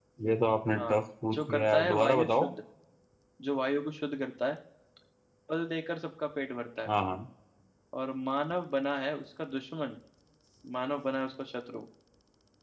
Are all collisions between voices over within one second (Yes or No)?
No